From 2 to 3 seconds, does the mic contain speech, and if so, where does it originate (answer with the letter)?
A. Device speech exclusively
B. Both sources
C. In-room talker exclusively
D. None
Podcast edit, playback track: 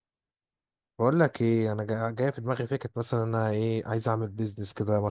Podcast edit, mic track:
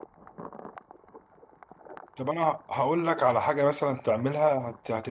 C